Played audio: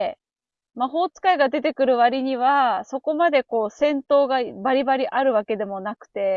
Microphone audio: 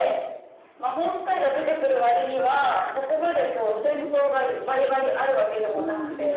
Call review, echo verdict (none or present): present